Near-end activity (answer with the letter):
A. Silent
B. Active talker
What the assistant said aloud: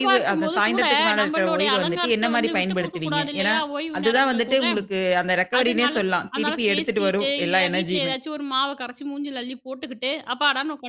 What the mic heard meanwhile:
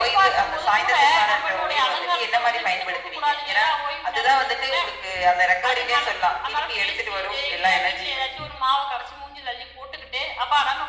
A